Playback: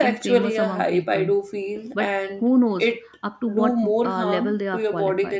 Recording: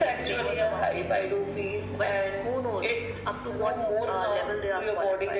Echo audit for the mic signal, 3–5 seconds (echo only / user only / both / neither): echo only